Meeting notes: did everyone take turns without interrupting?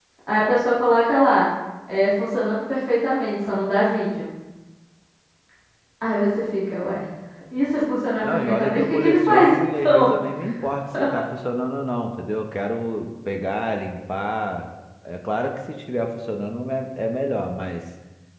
No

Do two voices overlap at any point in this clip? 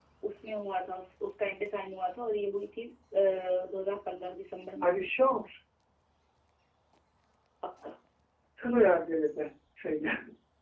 No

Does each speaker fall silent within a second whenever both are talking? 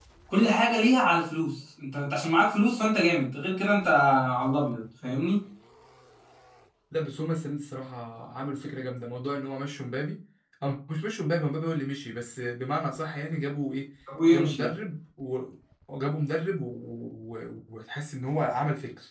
Yes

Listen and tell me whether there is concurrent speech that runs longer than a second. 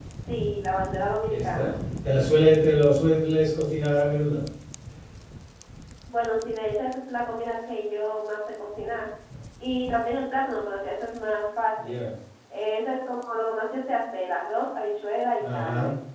No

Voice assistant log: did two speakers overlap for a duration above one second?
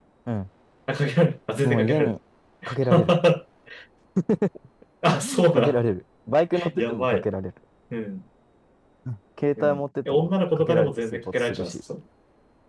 Yes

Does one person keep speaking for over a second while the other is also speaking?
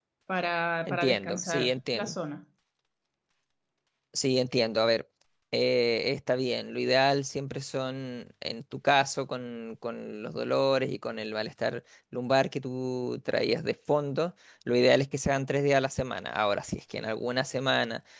Yes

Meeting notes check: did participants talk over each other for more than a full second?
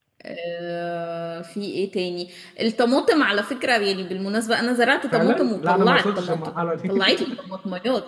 Yes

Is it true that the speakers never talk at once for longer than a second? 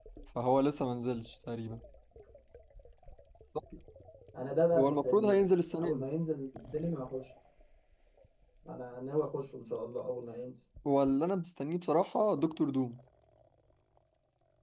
No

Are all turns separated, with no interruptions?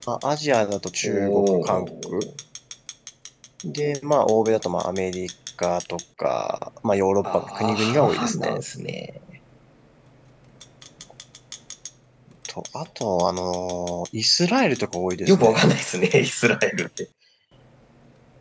No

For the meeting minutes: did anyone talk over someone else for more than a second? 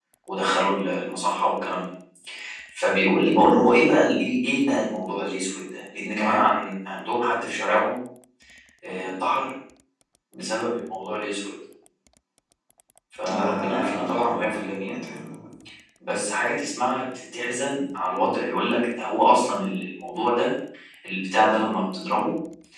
Yes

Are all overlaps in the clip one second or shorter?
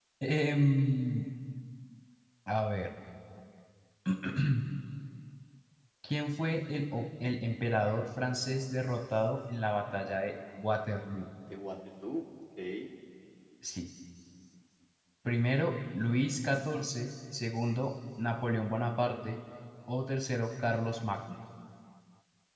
Yes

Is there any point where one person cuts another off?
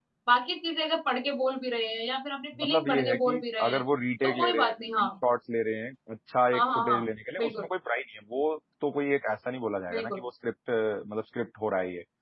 Yes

